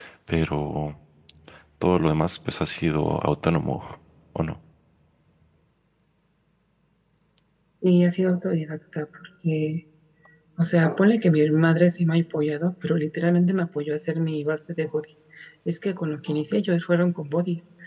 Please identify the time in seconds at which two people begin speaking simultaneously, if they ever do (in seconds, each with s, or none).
none